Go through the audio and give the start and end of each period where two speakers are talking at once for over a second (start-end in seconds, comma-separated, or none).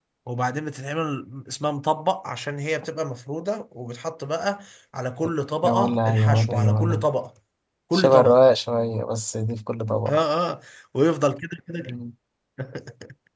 5.6-7.0